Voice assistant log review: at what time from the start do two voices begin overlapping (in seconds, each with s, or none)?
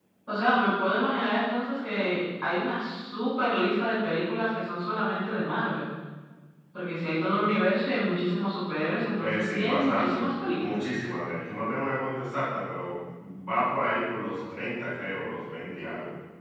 9.2 s